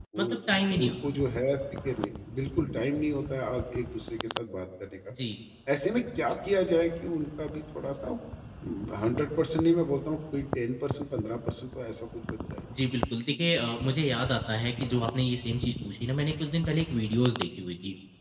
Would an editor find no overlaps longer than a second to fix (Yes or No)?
Yes